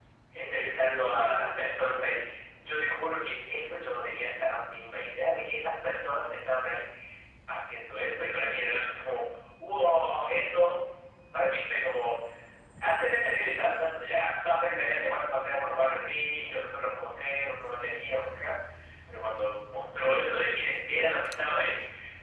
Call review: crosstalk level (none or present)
present